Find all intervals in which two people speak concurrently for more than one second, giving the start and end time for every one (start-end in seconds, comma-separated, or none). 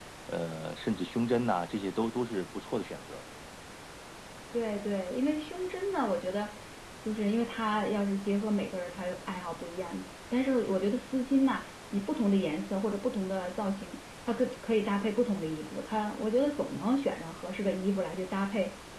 none